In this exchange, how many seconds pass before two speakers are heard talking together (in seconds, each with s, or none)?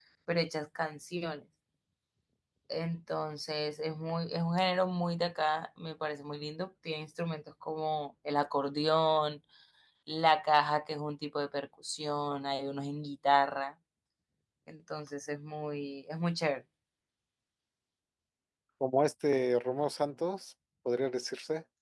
none